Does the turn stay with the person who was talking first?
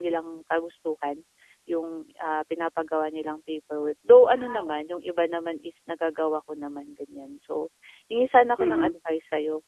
Yes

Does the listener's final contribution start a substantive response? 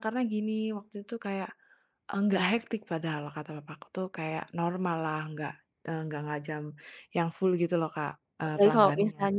Yes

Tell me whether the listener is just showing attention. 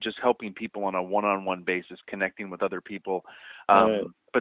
Yes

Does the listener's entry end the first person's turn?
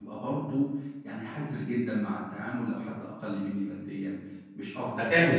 Yes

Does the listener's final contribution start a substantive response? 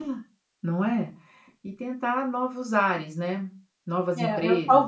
Yes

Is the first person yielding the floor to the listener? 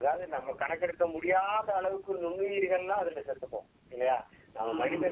No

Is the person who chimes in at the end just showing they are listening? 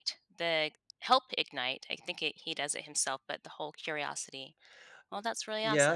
No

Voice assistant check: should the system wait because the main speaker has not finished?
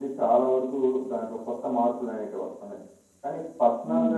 Yes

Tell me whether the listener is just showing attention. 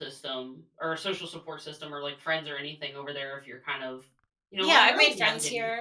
No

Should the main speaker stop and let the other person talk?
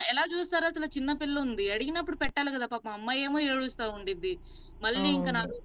No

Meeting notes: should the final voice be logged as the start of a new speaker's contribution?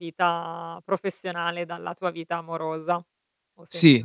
Yes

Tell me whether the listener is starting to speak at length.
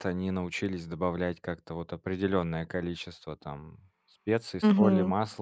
No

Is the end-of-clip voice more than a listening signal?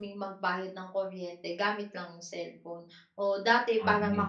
No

